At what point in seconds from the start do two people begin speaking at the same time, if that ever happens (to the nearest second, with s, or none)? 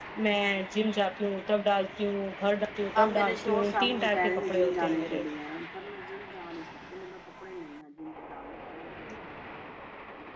3 s